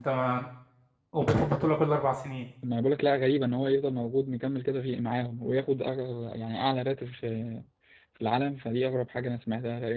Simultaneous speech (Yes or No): No